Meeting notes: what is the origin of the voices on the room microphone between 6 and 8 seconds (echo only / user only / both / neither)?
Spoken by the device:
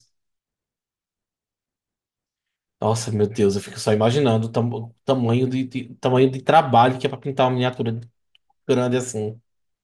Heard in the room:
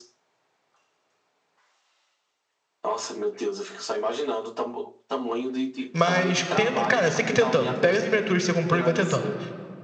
both